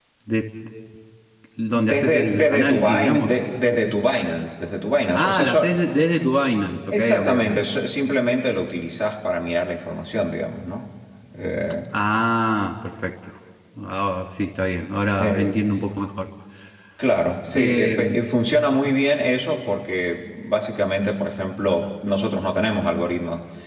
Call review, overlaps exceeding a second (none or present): present